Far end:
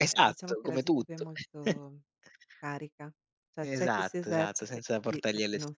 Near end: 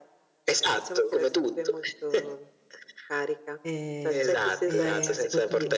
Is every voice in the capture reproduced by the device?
No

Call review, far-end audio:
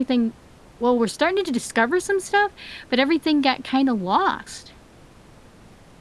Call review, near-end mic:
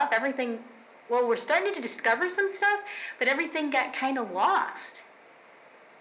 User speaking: No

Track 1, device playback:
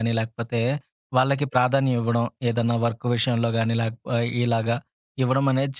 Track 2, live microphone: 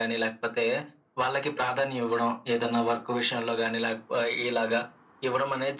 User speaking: No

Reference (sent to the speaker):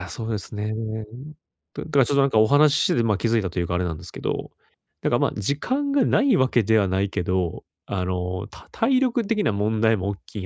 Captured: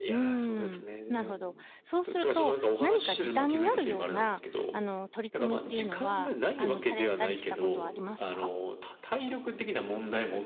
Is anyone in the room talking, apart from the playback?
Yes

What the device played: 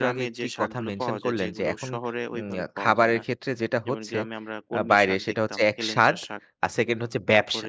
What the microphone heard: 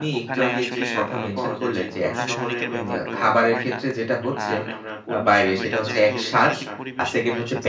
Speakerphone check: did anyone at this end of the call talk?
Yes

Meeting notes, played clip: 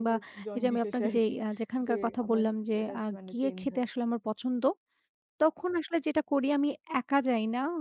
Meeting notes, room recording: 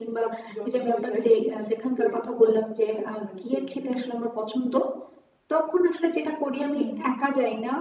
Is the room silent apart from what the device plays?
No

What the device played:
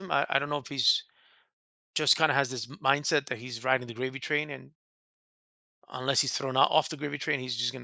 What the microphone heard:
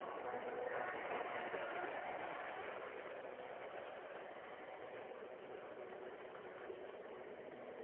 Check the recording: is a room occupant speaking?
No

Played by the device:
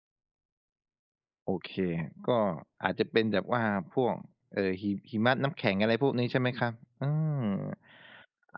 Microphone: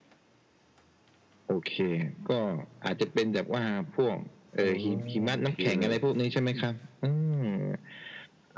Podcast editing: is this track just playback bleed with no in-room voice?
No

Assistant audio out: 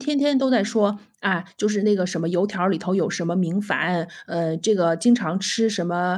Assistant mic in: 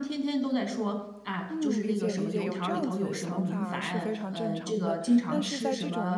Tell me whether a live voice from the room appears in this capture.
Yes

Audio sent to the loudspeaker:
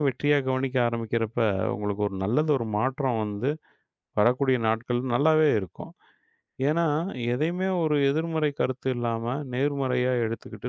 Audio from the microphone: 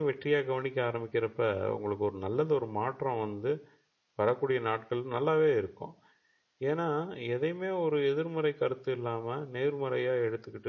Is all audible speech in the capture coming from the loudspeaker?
Yes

